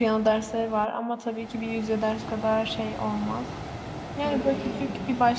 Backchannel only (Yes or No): Yes